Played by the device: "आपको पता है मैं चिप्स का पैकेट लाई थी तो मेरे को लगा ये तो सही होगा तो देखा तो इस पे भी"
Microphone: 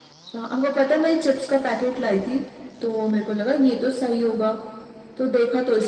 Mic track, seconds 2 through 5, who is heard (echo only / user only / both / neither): echo only